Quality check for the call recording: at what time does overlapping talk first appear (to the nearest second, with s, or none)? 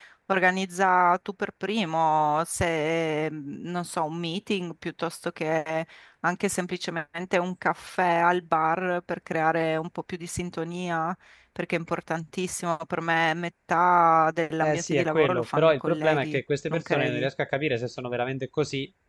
15 s